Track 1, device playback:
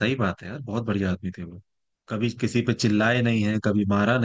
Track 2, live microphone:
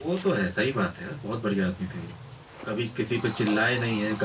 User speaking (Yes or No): No